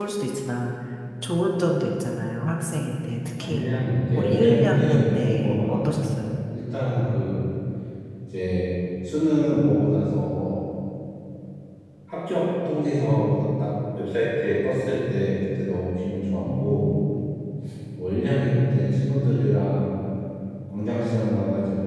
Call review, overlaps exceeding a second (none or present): present